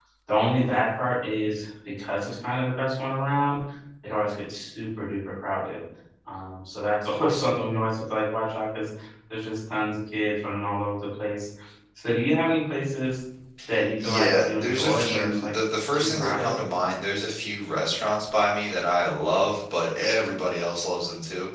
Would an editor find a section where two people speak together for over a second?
Yes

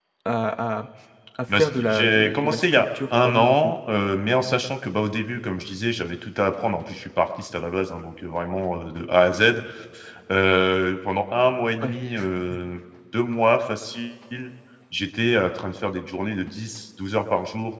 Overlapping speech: Yes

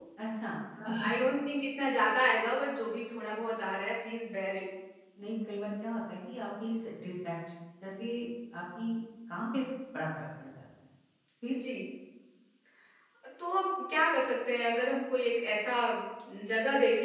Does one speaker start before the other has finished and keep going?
No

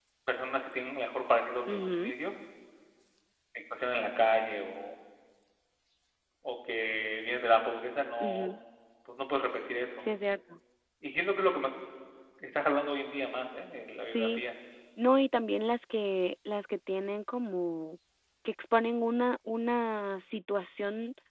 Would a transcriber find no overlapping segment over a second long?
Yes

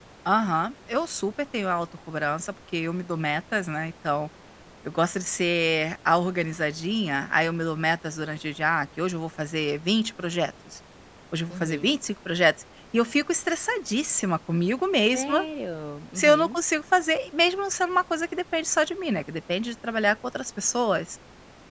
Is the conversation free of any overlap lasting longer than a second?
Yes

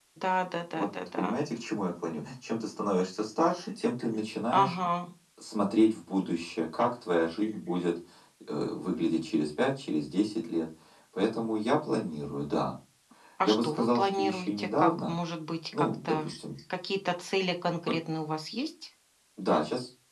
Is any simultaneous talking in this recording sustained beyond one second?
Yes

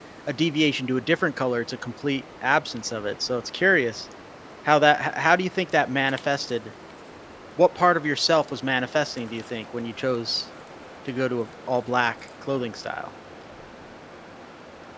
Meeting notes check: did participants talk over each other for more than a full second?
No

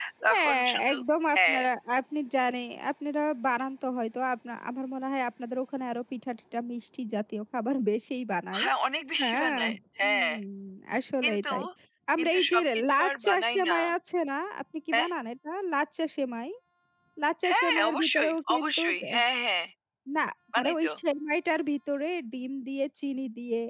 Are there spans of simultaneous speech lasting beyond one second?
Yes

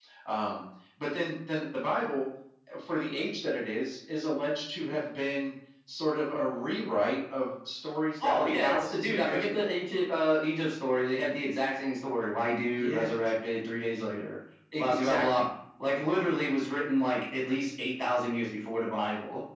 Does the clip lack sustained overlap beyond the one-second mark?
No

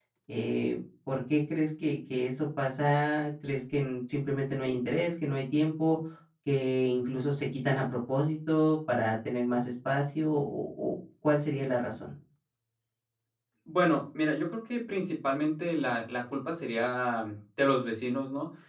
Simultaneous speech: No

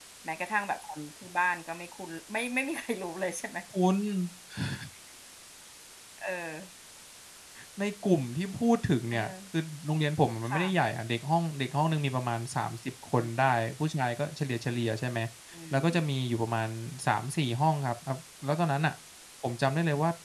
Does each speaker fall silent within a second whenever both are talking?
Yes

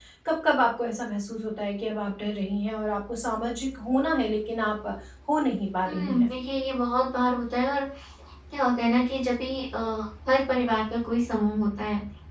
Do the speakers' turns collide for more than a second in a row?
No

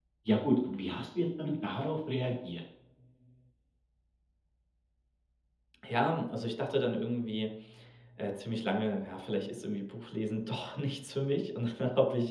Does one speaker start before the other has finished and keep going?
No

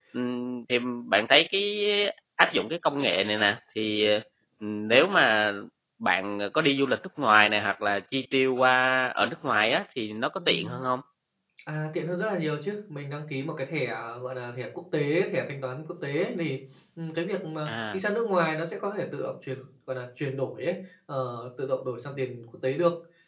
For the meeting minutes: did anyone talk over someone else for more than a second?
No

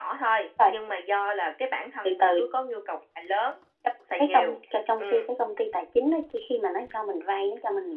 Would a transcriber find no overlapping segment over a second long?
Yes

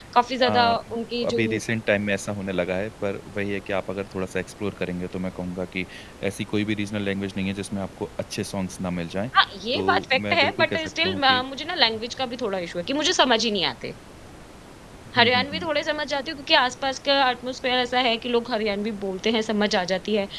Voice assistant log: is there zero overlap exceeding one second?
No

